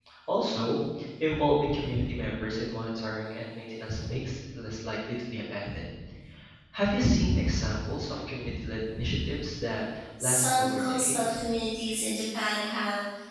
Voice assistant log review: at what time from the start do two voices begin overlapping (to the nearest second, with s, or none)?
10 s